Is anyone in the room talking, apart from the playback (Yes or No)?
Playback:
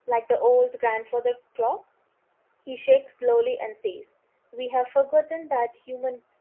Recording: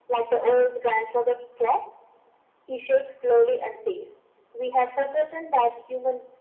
No